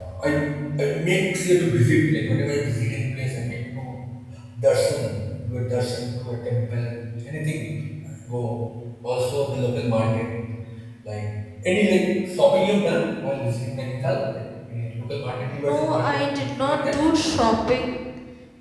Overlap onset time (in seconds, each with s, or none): 15.5 s